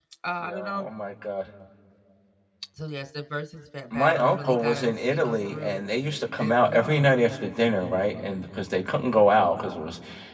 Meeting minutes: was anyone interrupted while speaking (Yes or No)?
Yes